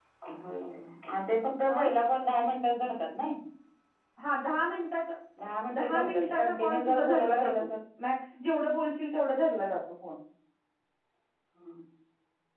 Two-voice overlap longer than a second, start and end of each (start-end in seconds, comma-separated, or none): 5.7-7.7